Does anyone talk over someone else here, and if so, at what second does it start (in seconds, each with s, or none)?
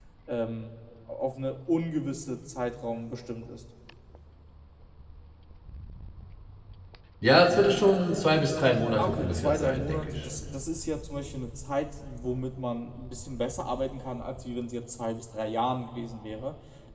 9.0 s